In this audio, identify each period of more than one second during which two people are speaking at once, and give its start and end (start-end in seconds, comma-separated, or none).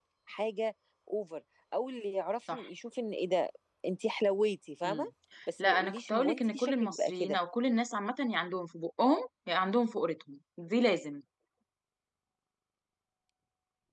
5.6-7.4